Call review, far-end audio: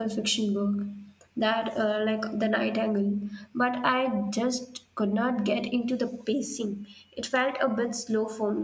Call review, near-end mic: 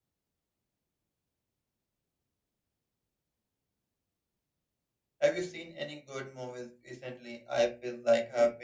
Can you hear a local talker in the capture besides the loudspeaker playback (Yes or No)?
Yes